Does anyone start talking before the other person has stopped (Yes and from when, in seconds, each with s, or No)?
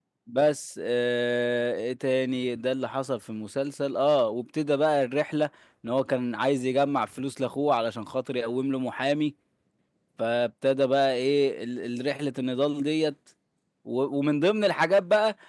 No